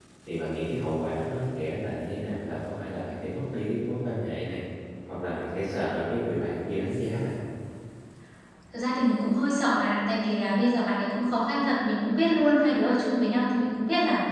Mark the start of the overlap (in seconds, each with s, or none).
none